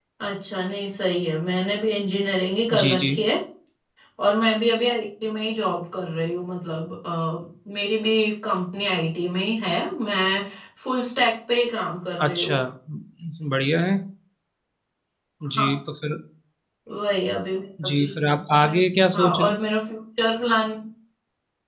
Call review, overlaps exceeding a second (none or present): none